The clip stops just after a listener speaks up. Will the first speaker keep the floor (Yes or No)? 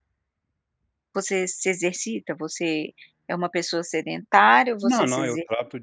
No